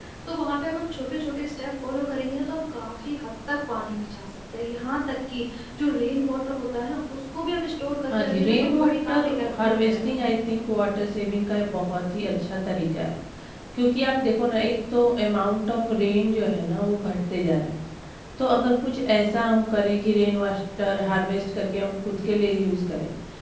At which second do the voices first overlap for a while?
8.1 s

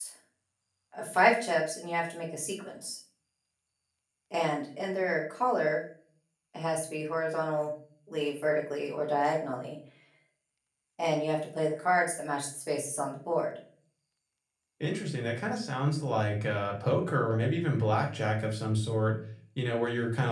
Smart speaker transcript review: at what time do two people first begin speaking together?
none

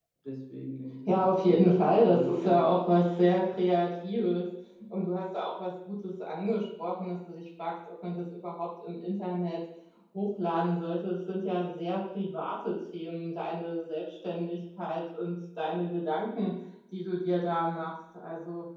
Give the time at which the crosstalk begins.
1.1 s

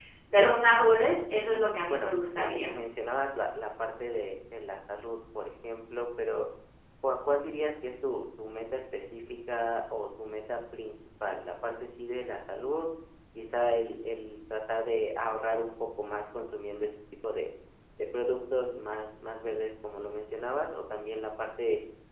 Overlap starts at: 1.3 s

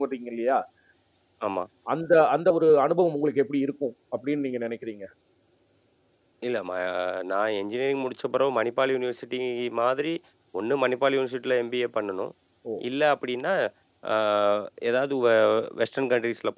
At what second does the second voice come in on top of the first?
none

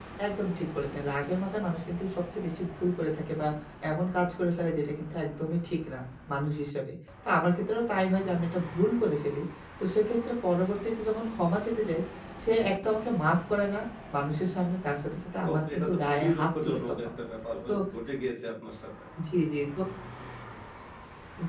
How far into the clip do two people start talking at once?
15.4 s

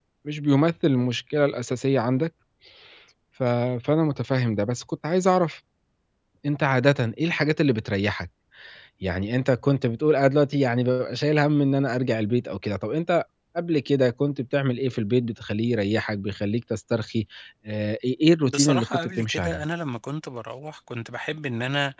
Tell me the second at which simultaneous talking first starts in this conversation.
18.4 s

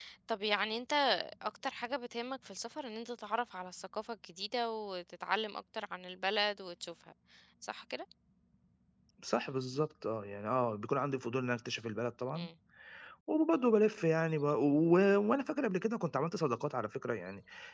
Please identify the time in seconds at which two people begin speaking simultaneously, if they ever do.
none

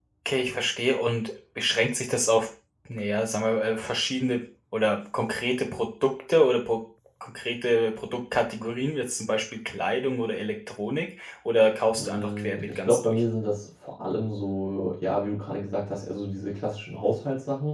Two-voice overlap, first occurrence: 12.0 s

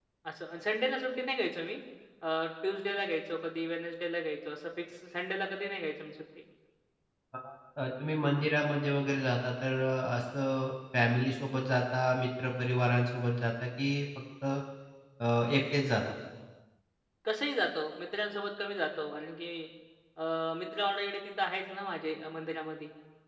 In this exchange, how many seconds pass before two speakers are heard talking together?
none

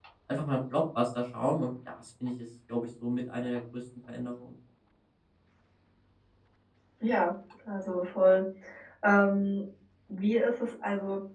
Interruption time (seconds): none

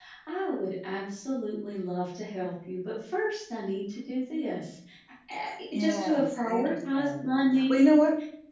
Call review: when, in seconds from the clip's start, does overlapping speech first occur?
5.7 s

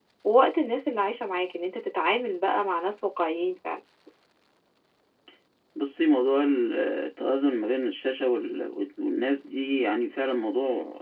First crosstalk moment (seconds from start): none

